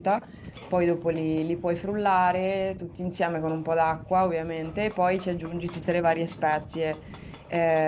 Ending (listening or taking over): listening